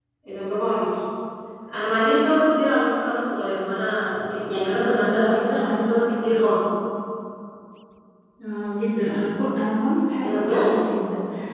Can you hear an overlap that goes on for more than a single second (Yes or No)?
Yes